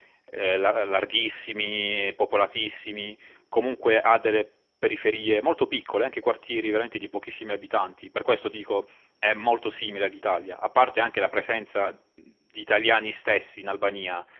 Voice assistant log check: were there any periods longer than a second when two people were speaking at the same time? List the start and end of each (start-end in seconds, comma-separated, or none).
none